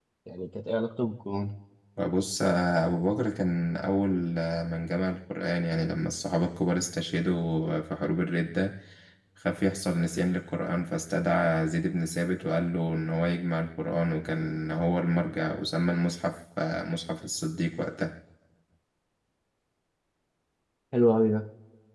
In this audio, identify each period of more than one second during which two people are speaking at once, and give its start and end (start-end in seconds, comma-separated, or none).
none